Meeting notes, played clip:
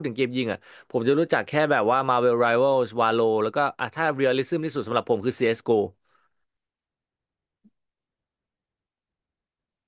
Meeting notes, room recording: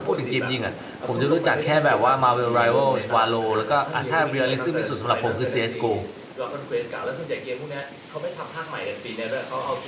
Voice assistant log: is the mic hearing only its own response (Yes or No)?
No